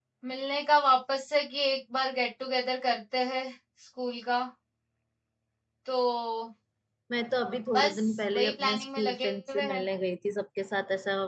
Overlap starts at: 7.8 s

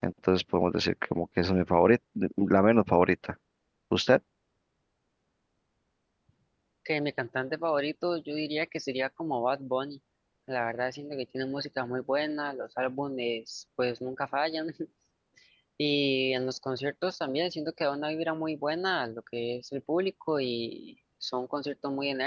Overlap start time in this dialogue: none

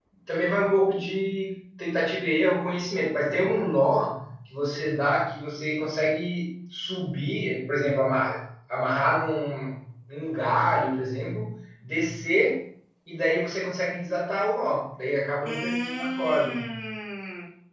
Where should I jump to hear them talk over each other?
15.4 s

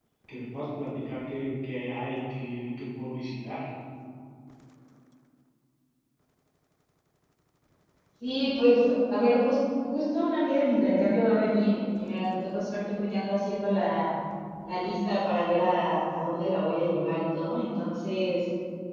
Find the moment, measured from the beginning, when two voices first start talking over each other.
none

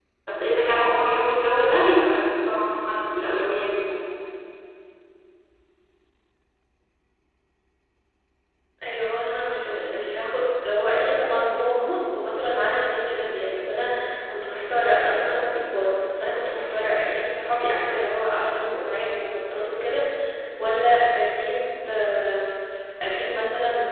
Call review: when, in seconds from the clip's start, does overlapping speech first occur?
none

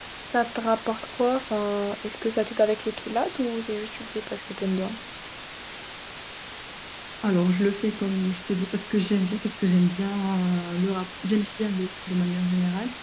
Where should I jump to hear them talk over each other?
none

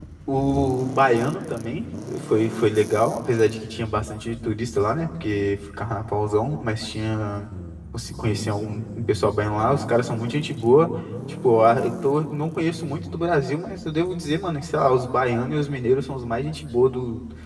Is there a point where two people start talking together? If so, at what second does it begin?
none

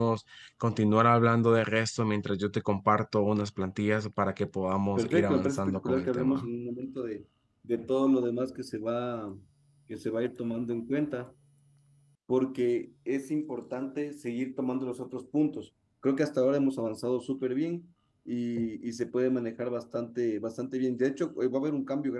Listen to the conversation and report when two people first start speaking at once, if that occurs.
5.0 s

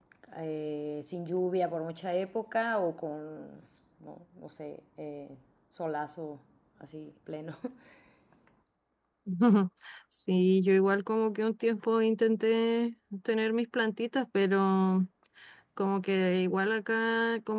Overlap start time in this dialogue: none

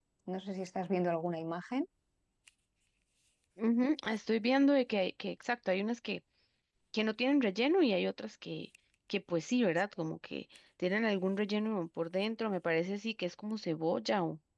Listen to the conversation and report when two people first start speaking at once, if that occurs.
none

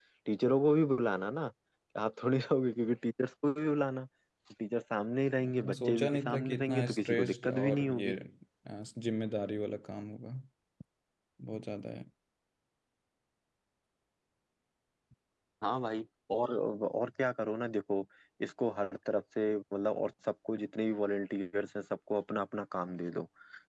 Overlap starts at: 5.4 s

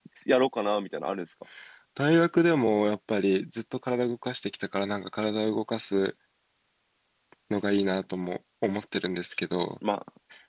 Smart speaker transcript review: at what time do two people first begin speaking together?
none

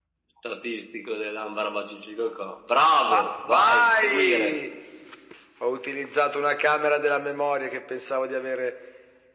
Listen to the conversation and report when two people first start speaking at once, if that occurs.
3.1 s

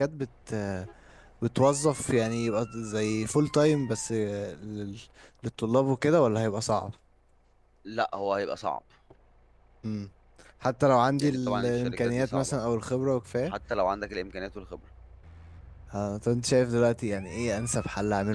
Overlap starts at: 11.2 s

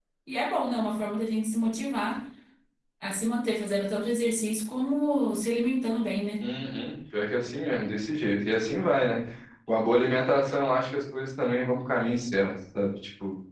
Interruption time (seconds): none

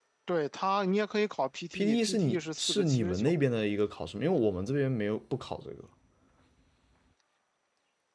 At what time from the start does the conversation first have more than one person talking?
1.7 s

